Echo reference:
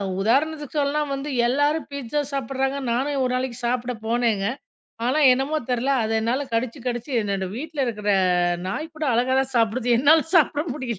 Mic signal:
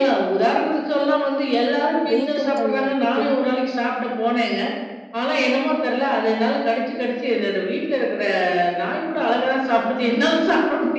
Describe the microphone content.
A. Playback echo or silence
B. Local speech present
B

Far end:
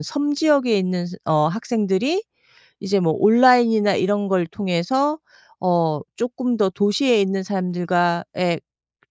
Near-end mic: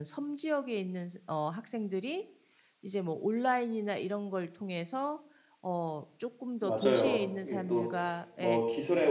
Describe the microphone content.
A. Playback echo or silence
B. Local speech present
B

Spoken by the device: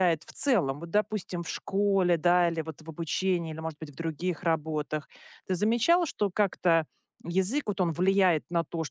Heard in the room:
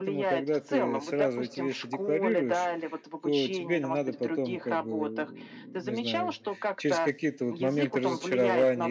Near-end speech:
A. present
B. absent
A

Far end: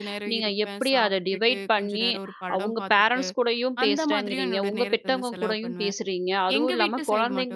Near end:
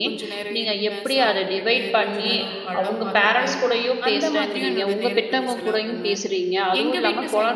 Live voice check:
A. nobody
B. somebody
A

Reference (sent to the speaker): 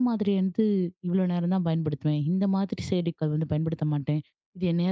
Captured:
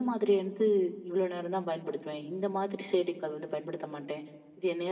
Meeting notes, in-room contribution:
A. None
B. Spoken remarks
A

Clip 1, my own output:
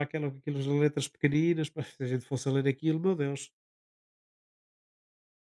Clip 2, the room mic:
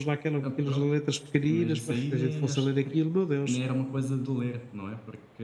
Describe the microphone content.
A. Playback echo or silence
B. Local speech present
B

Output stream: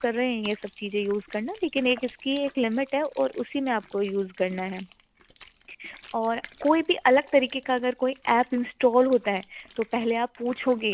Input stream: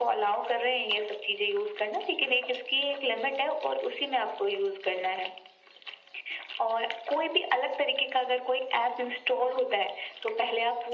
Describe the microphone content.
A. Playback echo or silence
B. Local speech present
A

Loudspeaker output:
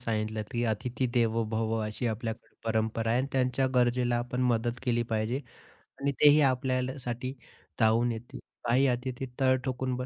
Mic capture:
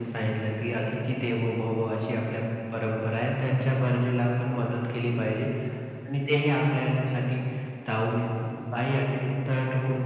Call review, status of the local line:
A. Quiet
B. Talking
A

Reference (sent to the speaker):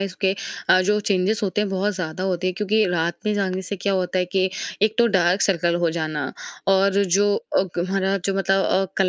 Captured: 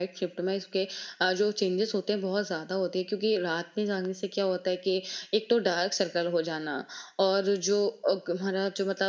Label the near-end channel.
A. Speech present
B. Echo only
B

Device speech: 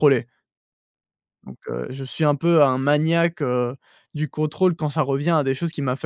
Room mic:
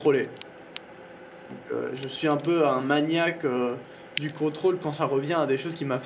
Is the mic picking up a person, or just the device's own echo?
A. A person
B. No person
B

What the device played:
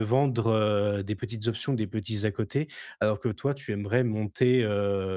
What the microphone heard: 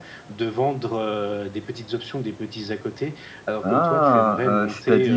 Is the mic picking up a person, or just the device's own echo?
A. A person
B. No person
A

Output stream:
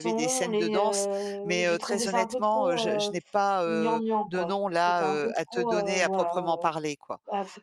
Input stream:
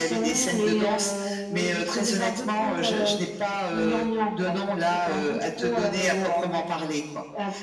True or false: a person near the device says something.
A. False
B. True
A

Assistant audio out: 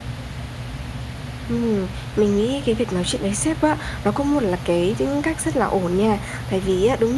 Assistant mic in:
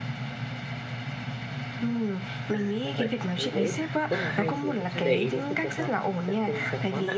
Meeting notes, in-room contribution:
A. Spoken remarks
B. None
A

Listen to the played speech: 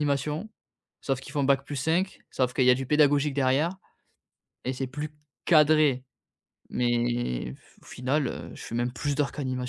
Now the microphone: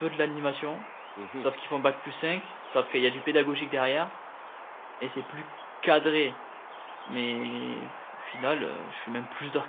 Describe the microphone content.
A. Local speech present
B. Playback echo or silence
A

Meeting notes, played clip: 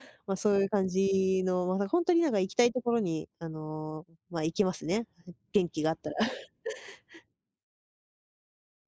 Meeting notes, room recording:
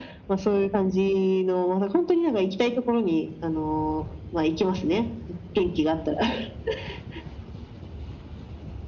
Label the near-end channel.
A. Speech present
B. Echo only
B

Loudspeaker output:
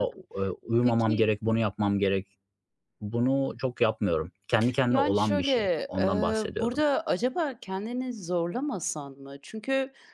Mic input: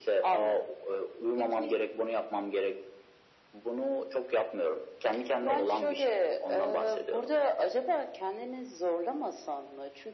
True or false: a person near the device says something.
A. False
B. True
A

